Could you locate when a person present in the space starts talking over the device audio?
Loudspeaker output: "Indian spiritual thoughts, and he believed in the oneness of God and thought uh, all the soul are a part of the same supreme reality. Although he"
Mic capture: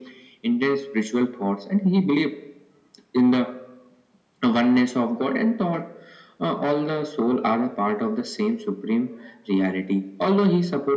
none

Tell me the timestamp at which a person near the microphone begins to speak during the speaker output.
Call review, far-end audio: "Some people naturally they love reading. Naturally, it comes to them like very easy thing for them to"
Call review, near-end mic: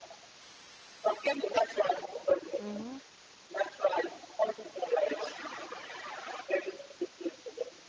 2.6 s

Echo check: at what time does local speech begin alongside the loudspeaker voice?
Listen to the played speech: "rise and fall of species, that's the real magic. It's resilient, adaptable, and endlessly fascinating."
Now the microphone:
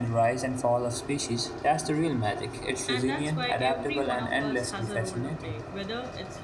2.9 s

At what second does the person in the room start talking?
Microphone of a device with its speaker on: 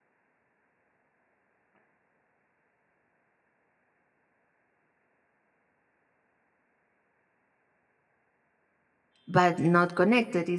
9.3 s

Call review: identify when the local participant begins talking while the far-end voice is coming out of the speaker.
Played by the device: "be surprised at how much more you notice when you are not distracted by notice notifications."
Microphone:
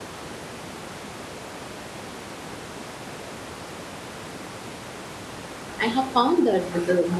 5.8 s

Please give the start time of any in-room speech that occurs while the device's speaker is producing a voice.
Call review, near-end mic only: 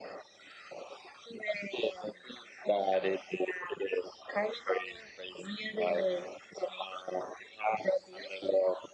none

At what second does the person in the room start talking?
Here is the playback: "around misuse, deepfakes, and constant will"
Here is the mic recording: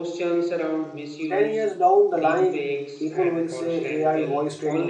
1.3 s

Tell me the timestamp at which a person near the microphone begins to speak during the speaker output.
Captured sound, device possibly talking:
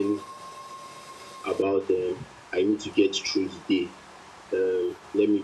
none

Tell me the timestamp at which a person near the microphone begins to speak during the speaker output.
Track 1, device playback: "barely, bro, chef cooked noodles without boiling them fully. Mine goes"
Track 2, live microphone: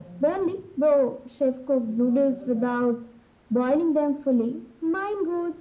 none

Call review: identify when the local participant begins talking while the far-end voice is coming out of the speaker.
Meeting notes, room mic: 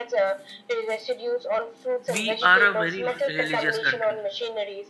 2.1 s

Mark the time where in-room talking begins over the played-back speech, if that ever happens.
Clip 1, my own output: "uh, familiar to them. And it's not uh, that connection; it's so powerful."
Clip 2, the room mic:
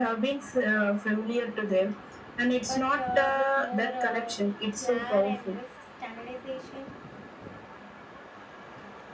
2.6 s

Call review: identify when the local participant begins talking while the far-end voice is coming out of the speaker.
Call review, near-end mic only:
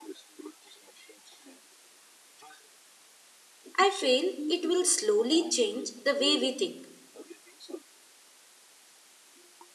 3.8 s

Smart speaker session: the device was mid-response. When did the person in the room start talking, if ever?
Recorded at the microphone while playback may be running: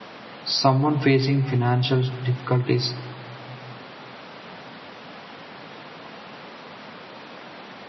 0.4 s

